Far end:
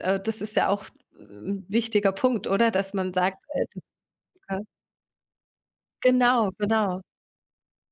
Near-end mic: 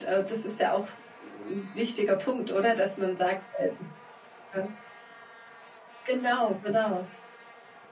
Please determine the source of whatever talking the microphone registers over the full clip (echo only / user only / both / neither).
echo only